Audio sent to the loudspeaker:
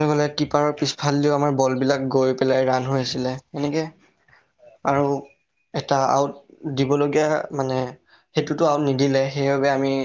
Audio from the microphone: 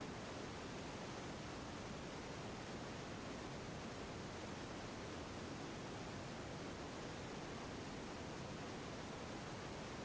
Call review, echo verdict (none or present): none